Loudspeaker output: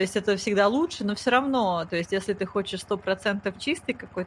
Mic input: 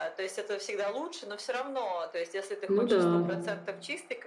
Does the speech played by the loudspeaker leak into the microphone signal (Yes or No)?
Yes